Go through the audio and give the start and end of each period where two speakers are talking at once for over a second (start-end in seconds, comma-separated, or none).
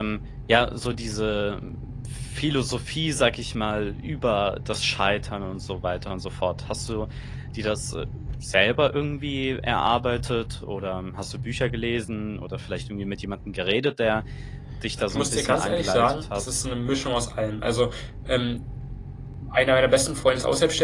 15.1-16.4